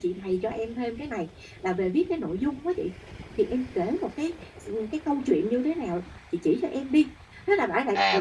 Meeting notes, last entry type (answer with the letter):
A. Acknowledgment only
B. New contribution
B